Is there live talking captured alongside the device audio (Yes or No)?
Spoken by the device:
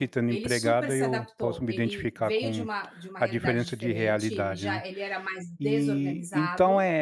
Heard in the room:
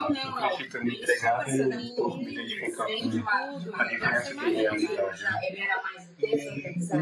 Yes